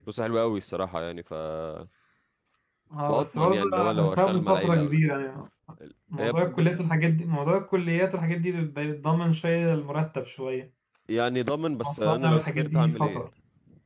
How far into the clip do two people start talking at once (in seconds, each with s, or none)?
3.1 s